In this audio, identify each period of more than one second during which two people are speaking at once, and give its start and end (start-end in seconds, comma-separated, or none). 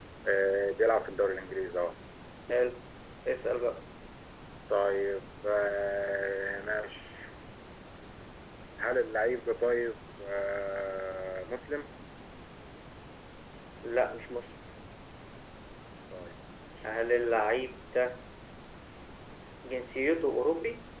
none